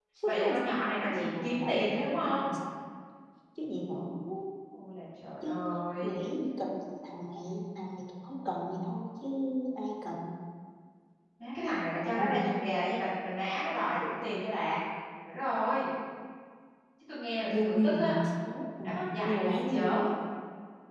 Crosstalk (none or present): present